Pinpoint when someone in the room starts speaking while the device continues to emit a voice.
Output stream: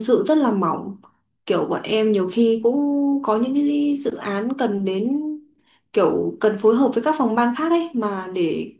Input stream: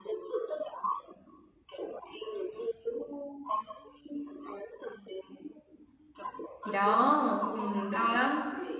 6.6 s

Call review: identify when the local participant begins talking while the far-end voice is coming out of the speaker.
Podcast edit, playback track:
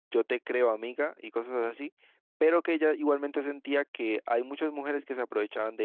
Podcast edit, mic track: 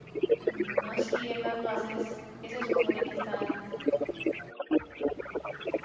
0.4 s

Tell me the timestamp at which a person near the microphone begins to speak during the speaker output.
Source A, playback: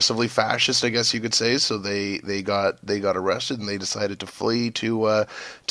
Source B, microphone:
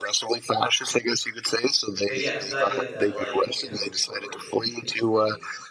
2.1 s

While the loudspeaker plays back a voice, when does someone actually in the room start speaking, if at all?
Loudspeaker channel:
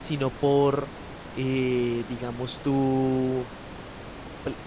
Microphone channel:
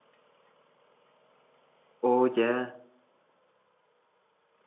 2.0 s

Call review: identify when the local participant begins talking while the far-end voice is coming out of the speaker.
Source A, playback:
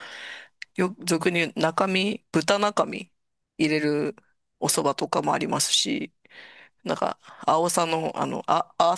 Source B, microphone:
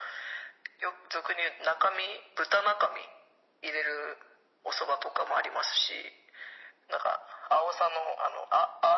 none

